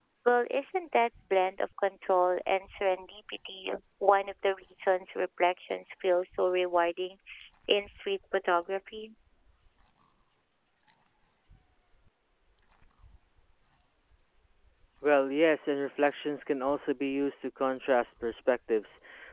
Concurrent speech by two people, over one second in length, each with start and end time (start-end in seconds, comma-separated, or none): none